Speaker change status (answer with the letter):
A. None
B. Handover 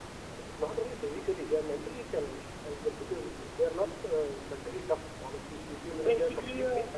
A